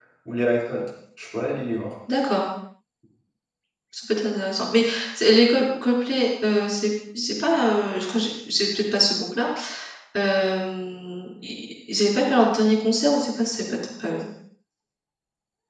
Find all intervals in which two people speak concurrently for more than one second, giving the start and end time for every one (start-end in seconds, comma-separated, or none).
none